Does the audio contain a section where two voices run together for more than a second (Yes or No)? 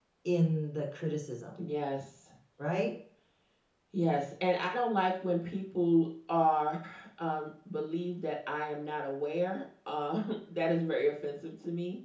No